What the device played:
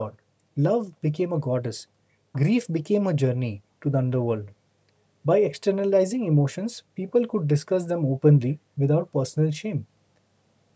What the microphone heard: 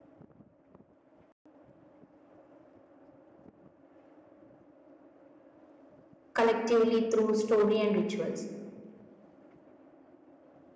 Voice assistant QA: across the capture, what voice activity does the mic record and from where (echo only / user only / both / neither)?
user only